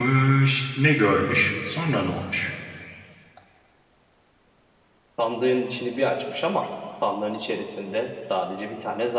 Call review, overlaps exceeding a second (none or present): none